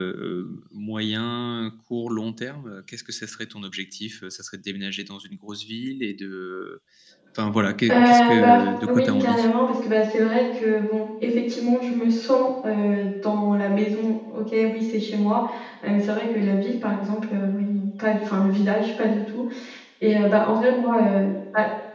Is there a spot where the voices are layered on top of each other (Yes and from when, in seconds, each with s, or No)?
Yes, from 7.9 s